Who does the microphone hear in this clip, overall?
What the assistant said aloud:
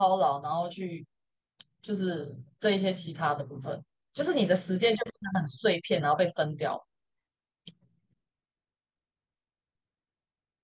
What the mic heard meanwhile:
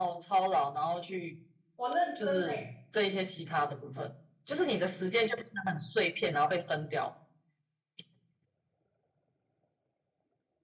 both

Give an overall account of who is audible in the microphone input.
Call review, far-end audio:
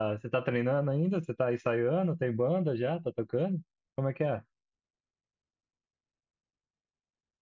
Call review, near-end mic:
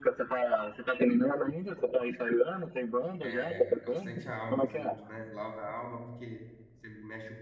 both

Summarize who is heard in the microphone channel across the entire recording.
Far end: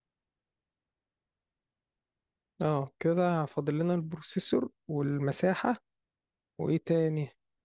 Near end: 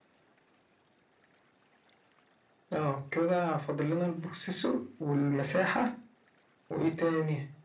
echo only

